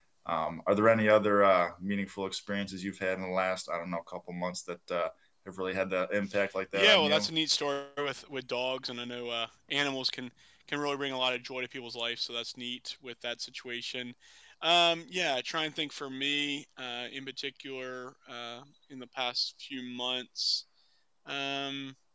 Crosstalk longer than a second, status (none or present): none